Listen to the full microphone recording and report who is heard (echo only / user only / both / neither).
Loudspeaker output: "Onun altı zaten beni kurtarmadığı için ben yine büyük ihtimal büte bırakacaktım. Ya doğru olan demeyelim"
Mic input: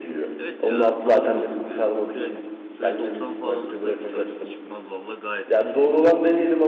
both